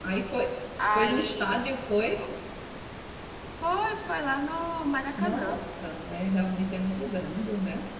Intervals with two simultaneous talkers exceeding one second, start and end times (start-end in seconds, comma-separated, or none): none